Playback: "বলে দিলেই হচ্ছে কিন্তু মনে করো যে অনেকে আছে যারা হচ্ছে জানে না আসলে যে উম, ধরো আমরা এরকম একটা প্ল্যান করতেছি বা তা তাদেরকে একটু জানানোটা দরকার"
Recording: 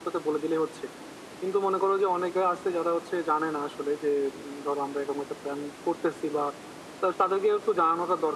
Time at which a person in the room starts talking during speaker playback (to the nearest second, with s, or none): none